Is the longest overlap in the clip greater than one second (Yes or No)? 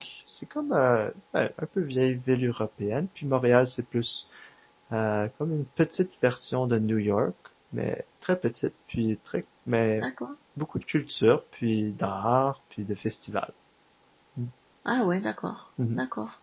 No